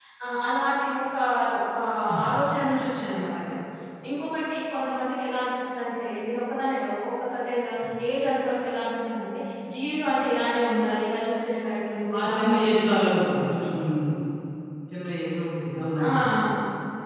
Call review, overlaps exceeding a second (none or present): present